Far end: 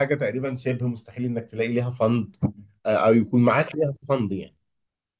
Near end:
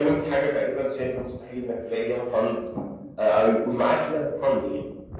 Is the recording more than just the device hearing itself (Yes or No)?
No